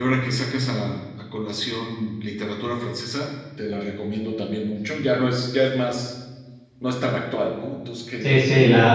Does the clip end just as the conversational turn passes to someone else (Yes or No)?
Yes